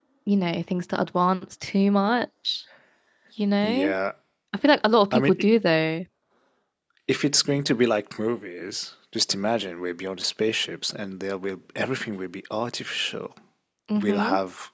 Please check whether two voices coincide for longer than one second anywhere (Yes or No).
No